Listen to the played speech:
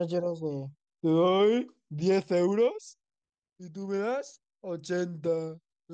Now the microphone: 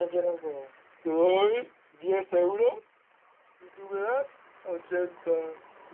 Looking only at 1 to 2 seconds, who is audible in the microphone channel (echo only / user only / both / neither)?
echo only